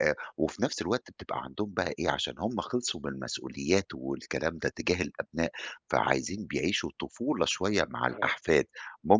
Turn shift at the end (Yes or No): No